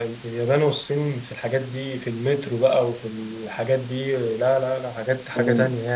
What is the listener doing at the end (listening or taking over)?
taking over